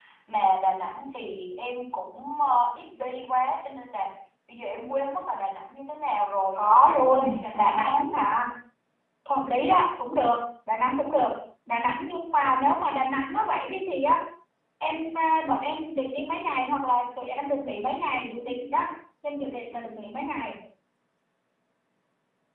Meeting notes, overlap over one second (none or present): present